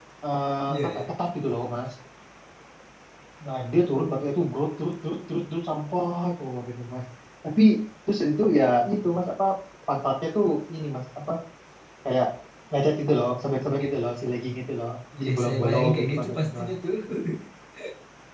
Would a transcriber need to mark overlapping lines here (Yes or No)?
Yes